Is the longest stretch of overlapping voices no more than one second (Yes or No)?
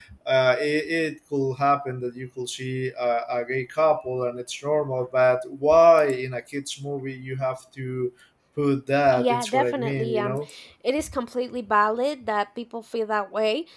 No